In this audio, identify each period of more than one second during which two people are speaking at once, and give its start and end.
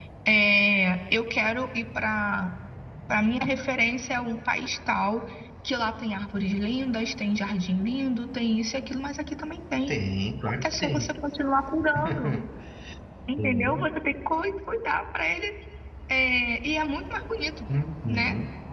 none

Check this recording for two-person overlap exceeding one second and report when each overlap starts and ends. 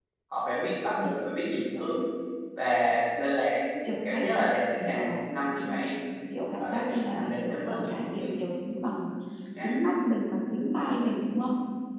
6.6-8.3

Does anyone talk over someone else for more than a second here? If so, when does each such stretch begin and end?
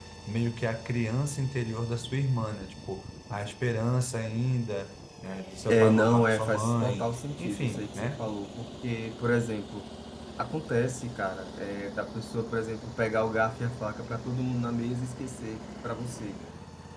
5.7-8.3

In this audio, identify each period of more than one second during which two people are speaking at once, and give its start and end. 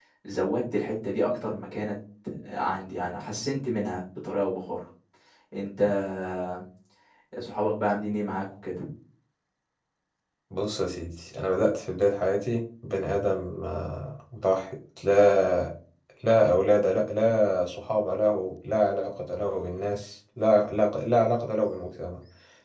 none

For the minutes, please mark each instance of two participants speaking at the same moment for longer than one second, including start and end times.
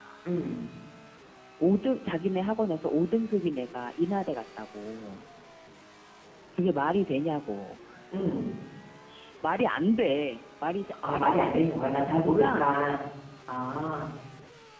11.1-12.7

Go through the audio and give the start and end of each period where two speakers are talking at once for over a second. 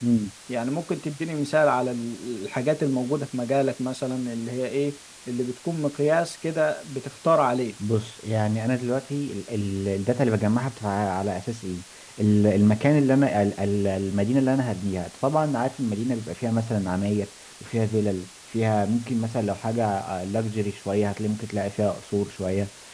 none

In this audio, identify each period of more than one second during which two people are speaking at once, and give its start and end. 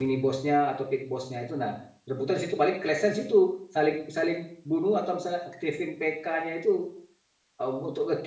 none

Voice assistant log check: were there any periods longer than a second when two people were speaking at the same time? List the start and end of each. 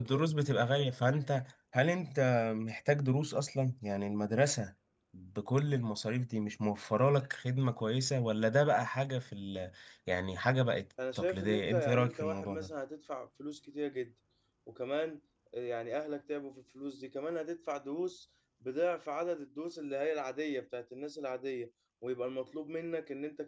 11.2-12.7

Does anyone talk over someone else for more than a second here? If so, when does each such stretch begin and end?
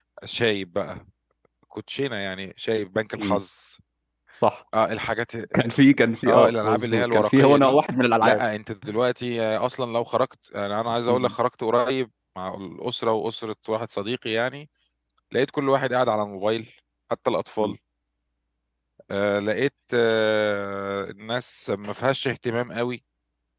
6.3-7.8

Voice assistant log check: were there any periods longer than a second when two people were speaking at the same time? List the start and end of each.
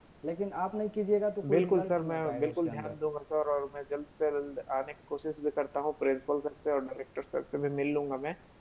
1.5-2.9

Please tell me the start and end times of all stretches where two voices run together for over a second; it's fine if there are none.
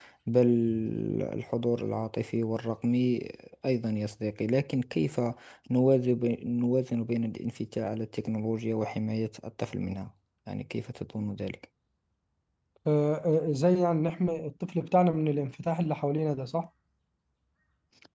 none

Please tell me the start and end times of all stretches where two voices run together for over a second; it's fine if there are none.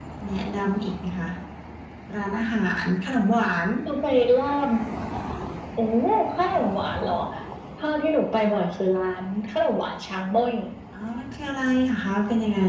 none

